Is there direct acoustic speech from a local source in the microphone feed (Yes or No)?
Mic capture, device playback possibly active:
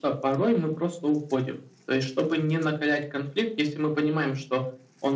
No